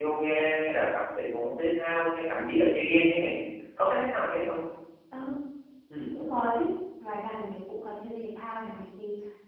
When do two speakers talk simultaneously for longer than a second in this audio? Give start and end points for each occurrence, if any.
none

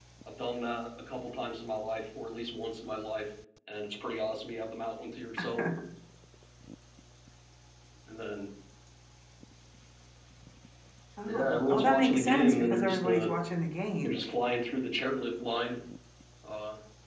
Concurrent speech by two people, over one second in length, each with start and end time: 11.2-13.3

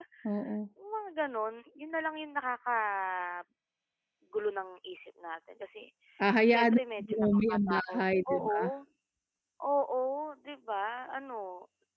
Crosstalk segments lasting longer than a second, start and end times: 6.5-8.7

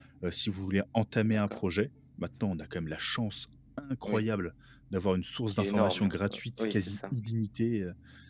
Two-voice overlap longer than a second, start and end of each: 5.5-7.1

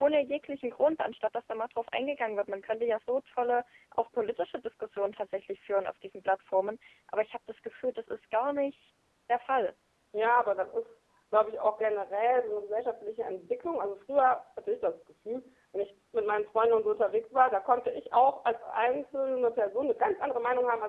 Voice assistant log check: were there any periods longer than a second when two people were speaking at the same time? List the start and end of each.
none

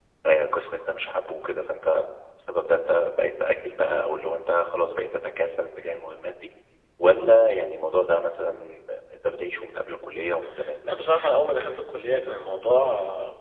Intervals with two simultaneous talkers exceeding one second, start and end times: none

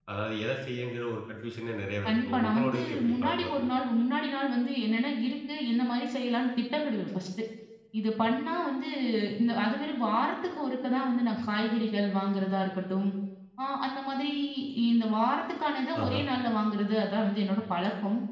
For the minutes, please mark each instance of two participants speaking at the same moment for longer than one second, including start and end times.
2.1-3.7

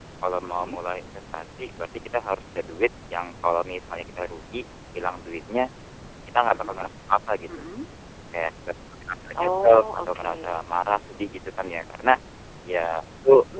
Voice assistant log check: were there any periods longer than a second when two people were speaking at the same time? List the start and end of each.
9.4-10.6

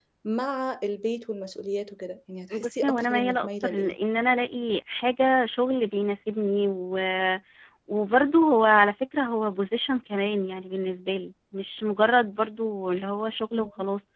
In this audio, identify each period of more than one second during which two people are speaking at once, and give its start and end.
2.5-4.0

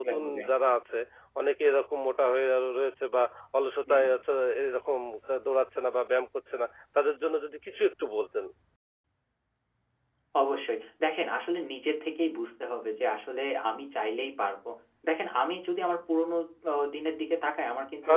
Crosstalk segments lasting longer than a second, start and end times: none

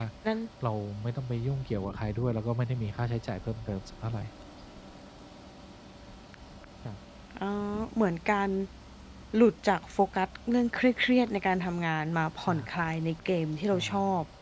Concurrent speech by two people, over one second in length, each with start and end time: none

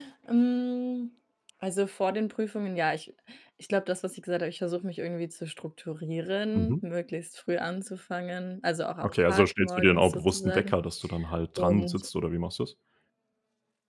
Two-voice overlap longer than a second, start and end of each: 9.0-10.7

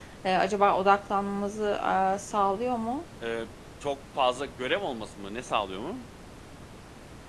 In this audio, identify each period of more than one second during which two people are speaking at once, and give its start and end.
none

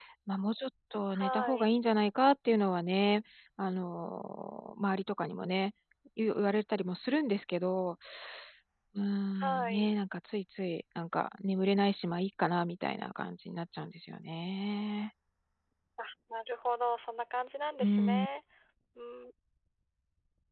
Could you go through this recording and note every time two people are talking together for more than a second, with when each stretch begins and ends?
none

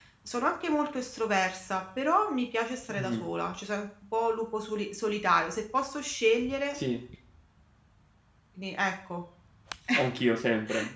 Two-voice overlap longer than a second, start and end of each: none

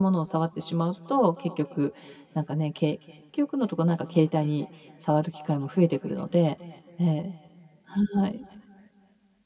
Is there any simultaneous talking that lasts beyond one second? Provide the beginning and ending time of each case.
none

